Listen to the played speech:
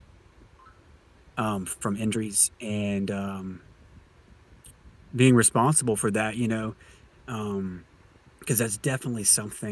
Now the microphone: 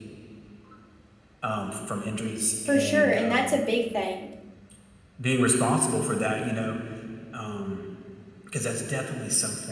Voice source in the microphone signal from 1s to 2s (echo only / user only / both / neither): echo only